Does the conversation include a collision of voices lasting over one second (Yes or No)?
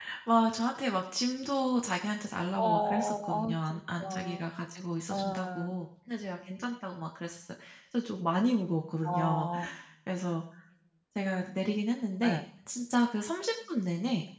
Yes